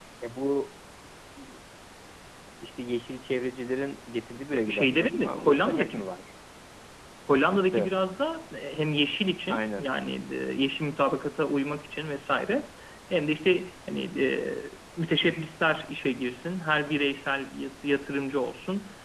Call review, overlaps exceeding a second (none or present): present